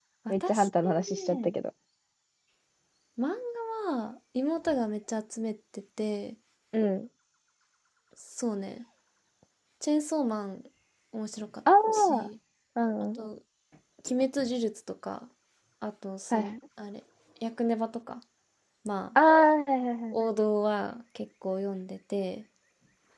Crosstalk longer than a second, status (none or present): present